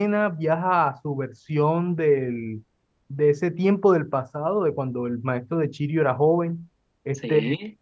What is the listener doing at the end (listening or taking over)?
listening